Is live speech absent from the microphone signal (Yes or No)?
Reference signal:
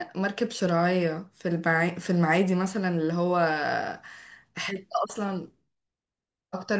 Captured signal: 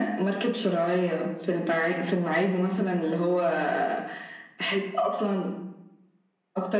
Yes